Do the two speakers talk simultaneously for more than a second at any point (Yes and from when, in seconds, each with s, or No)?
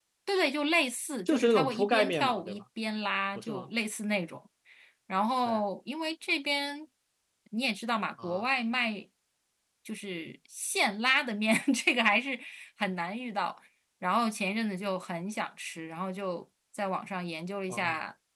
Yes, from 1.3 s